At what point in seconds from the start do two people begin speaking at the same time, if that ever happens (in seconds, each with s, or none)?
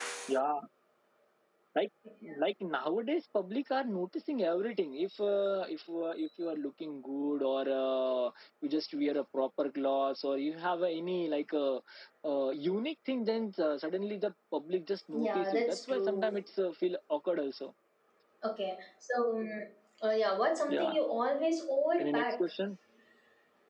15.1 s